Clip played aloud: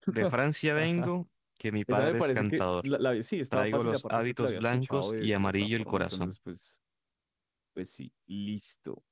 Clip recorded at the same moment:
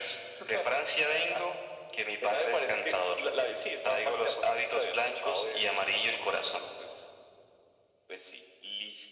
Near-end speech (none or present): none